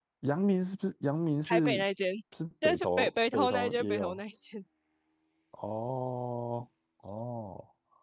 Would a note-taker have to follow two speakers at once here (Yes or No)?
Yes